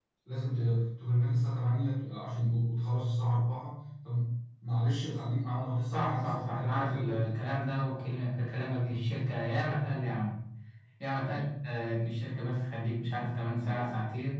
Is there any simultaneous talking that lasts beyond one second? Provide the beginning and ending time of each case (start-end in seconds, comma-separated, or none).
5.9-7.3